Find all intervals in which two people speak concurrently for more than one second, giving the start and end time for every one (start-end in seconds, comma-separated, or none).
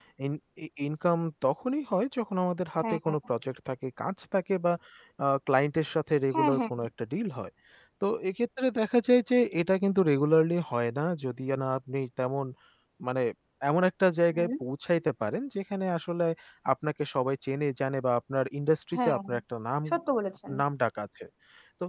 none